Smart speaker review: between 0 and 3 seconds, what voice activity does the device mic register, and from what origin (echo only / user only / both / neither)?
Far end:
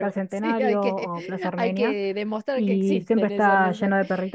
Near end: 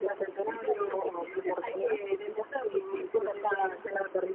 echo only